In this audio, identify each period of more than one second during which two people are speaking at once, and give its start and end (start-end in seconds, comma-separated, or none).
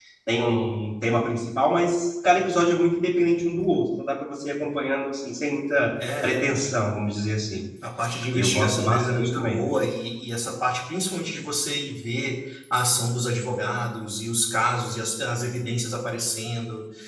8.3-9.6